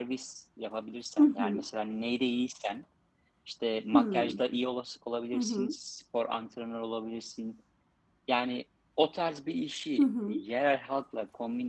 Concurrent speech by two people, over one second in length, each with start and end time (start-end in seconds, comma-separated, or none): none